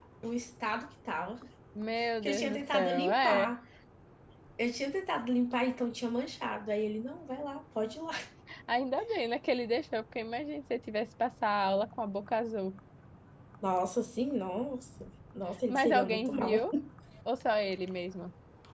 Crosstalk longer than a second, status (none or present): present